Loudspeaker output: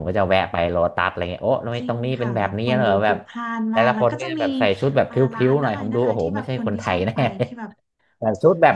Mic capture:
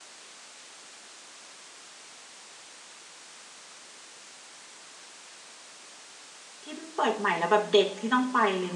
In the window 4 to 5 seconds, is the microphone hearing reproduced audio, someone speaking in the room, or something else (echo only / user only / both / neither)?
neither